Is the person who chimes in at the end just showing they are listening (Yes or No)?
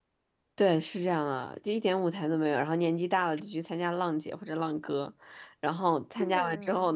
Yes